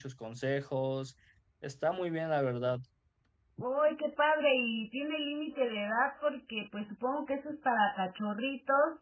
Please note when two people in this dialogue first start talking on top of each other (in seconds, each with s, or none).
none